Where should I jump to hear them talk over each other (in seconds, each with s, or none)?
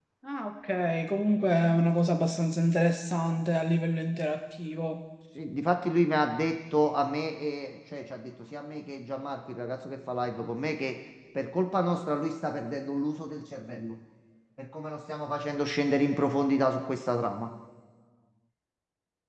none